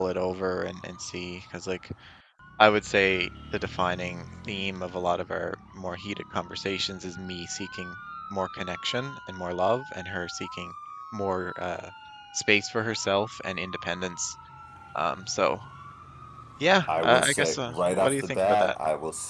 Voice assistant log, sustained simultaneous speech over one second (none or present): present